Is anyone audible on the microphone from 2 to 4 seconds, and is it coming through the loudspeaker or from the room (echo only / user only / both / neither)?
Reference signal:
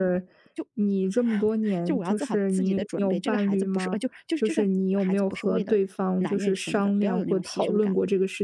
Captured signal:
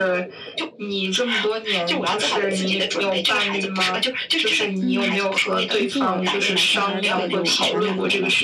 echo only